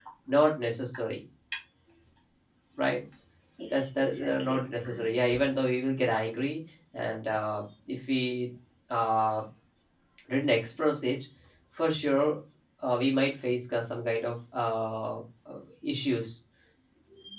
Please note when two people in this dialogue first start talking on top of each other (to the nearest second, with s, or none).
4 s